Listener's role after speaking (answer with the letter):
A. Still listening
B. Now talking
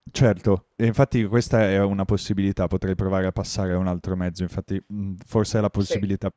A